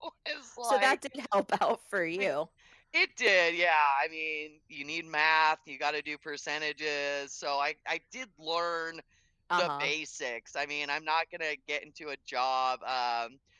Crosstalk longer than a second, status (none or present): none